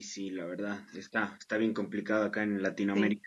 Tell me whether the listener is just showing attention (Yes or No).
Yes